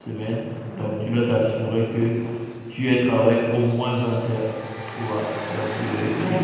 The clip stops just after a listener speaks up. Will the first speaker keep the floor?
Yes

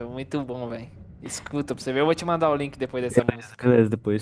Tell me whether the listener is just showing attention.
No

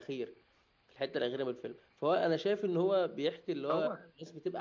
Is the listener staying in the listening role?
Yes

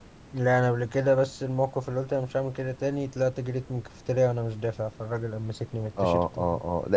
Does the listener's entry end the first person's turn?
Yes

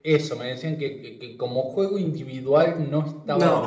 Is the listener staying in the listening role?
Yes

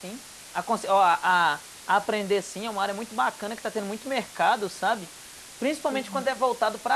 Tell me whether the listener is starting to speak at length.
No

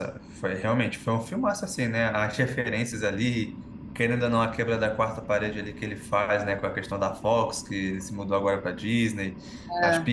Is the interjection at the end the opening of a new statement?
No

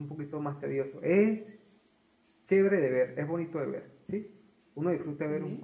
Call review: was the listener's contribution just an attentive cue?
Yes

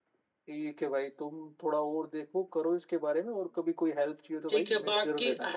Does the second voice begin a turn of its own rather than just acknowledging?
Yes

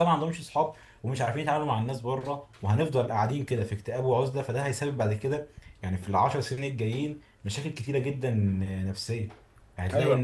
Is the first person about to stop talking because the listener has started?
No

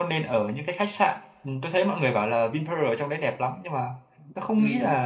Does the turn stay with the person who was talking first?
Yes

